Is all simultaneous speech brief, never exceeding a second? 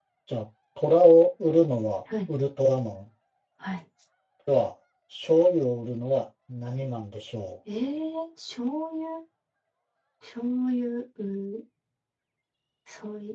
Yes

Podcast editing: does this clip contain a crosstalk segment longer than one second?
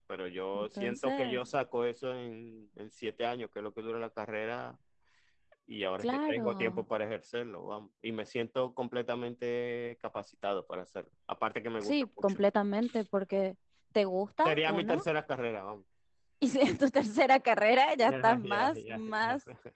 Yes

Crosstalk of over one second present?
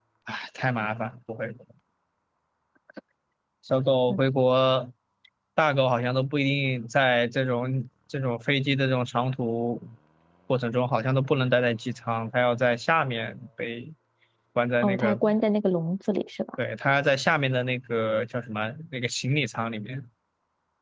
No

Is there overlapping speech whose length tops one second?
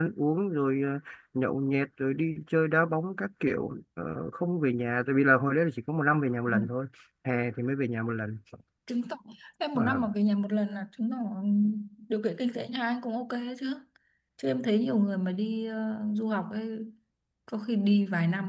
No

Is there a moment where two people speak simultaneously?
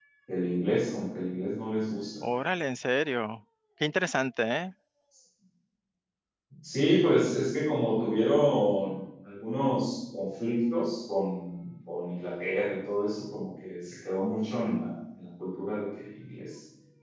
No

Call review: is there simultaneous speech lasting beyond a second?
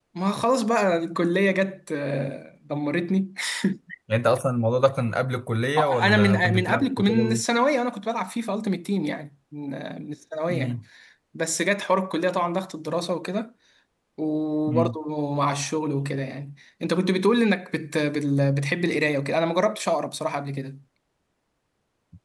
Yes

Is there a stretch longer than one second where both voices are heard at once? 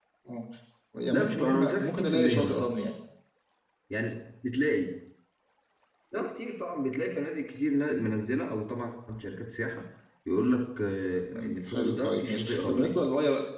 Yes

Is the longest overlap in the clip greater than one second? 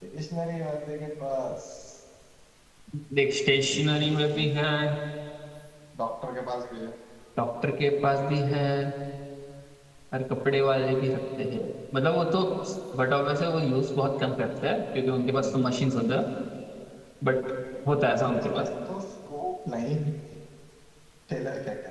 No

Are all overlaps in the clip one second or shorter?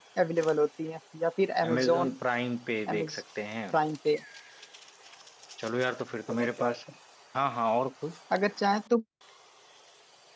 Yes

